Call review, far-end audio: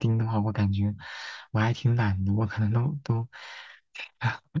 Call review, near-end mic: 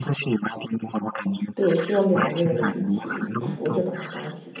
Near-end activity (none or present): present